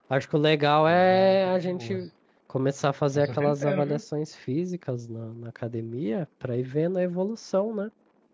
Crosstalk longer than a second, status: present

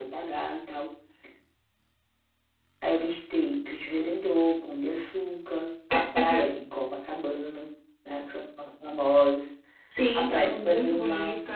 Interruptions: present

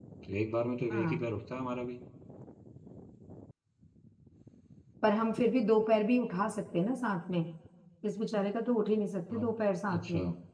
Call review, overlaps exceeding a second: none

